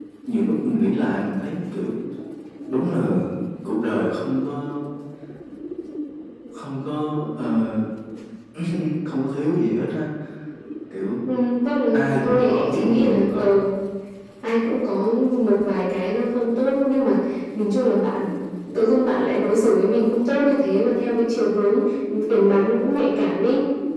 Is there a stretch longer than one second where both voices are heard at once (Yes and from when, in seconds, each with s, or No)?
Yes, from 11.9 s